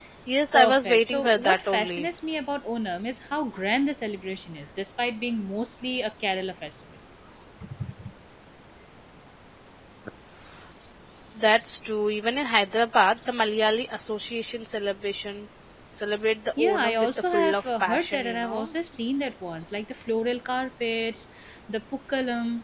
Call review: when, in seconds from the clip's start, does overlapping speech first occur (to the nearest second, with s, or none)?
1 s